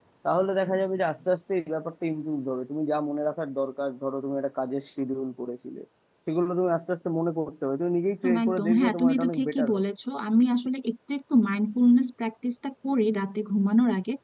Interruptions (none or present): present